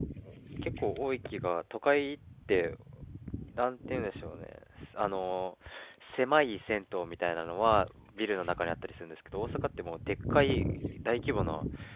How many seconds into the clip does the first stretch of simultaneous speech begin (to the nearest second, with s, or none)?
none